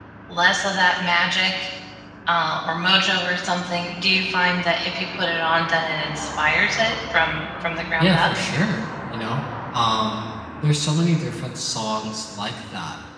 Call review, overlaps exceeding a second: none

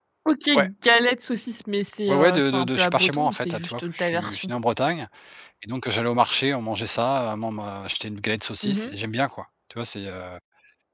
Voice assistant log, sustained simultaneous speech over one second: present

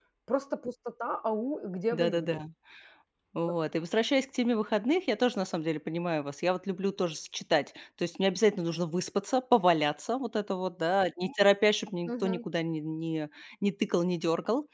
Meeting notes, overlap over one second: none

